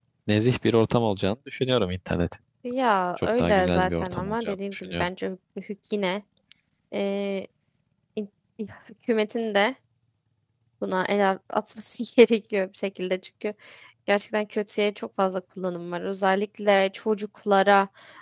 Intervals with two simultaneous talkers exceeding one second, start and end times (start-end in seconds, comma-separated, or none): 3.2-5.1